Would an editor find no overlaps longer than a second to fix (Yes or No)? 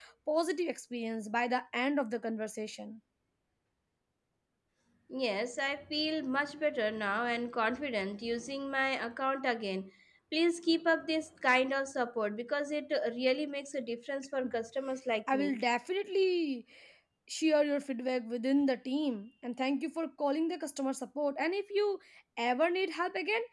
Yes